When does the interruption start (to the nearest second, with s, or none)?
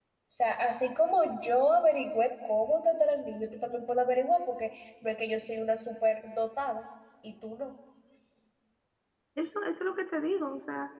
none